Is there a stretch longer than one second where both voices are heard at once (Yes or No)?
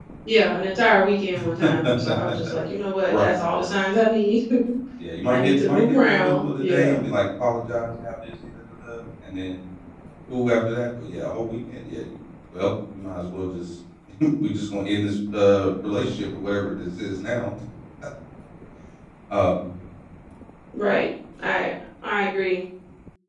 Yes